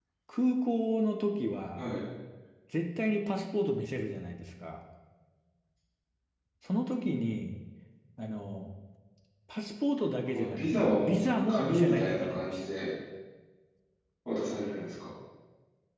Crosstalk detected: Yes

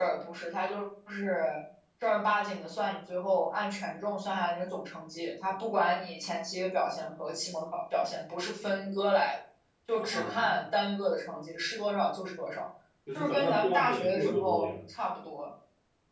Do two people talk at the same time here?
Yes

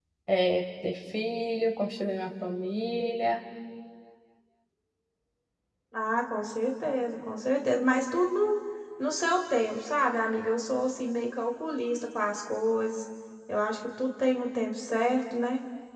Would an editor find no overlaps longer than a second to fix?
Yes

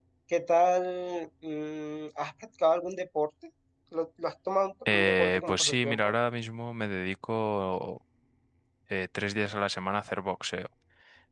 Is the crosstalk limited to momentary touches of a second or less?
No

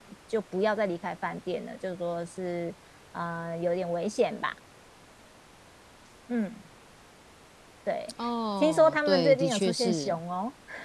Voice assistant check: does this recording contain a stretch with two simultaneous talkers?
Yes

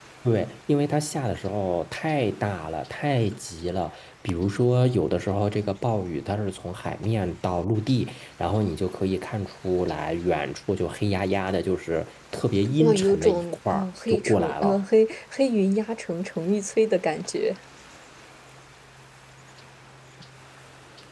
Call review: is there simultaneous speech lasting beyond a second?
Yes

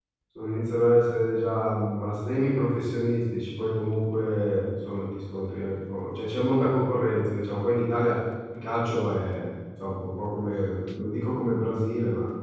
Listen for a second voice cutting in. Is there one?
No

